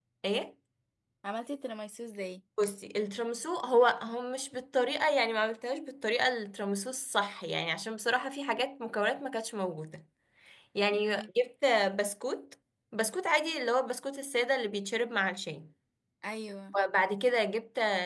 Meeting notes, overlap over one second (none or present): none